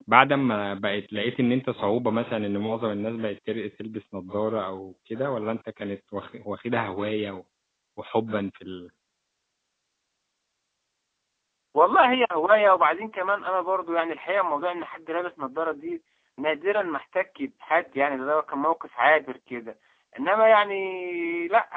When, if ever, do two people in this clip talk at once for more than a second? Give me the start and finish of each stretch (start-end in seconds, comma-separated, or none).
none